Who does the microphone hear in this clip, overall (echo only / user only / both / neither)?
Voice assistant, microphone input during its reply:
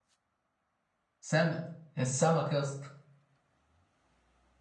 user only